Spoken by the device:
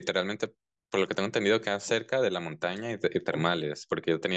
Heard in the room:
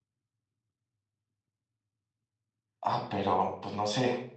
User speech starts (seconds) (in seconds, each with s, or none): 2.8 s